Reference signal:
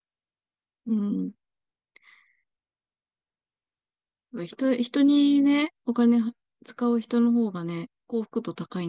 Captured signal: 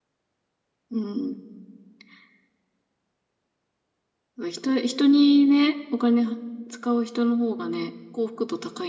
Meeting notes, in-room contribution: none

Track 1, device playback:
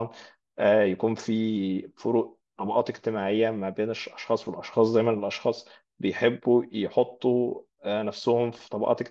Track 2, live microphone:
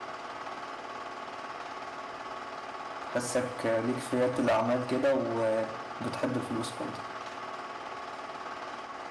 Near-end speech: present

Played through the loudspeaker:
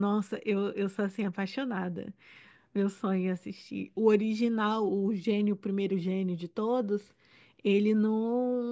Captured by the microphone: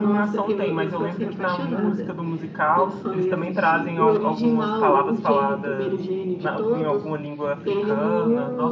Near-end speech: present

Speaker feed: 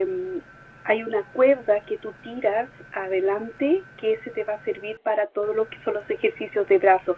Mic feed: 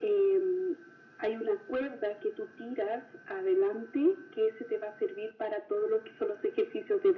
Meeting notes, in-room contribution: none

